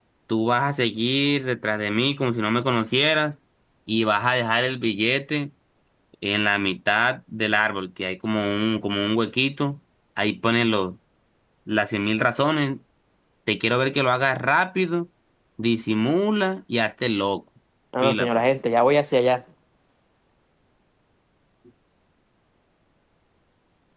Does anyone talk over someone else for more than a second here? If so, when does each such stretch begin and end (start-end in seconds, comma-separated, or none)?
none